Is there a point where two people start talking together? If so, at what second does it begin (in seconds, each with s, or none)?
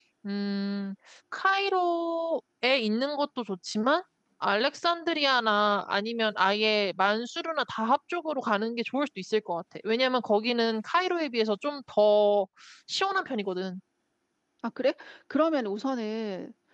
none